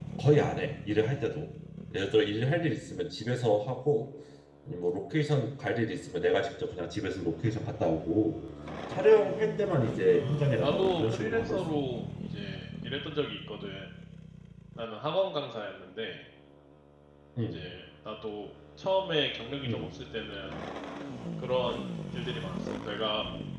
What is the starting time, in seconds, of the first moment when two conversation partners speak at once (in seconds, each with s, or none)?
10.1 s